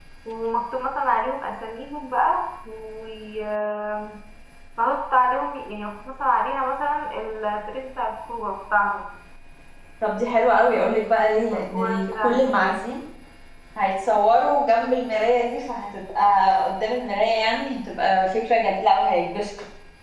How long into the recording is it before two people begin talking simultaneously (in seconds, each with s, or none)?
11.4 s